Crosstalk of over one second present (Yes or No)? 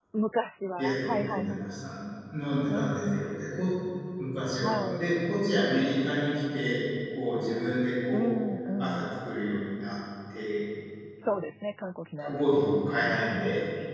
Yes